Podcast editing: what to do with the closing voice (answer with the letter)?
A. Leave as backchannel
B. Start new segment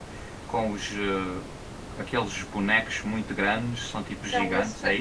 B